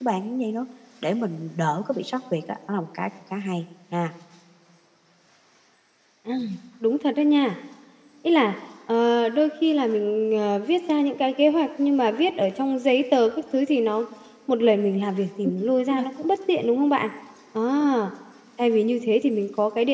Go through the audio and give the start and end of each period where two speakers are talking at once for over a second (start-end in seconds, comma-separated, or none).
none